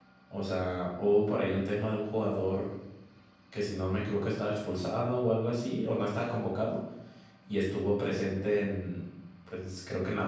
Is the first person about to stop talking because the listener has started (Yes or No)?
No